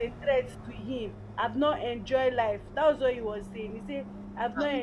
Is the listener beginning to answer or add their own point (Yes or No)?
Yes